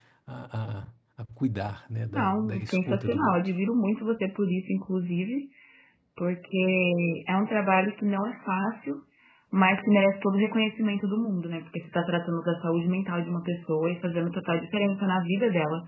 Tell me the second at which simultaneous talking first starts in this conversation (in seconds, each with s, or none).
2.1 s